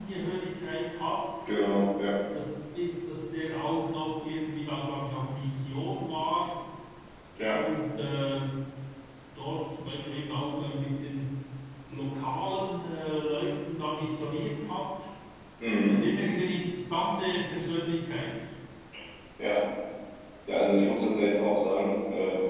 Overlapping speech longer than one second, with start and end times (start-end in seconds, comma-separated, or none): none